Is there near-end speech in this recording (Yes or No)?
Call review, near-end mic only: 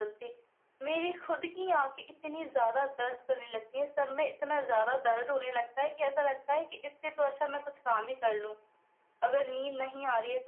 No